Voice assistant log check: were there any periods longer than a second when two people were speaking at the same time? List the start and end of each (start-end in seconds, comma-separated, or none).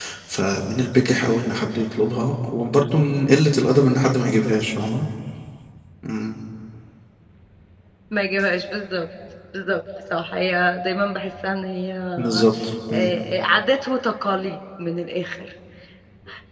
none